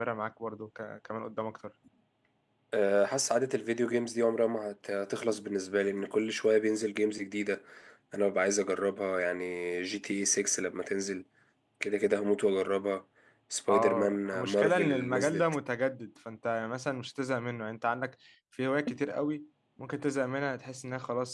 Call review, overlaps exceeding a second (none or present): present